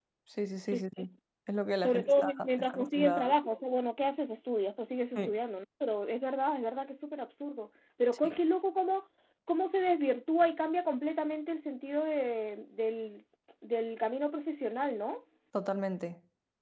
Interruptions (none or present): present